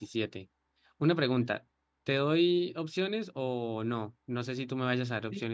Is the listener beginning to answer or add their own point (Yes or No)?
Yes